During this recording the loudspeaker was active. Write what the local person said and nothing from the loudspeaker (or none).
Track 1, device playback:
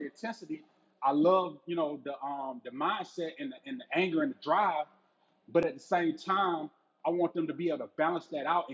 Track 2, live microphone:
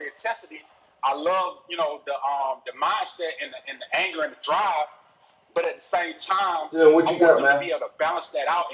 So what you got, man?